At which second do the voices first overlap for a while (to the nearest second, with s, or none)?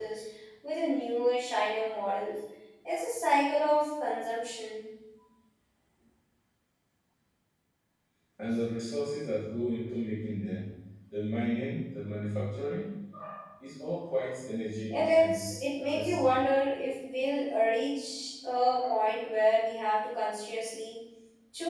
15 s